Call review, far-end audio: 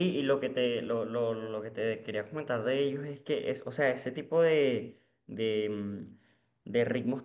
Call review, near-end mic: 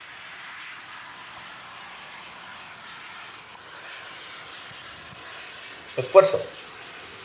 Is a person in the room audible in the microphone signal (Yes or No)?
Yes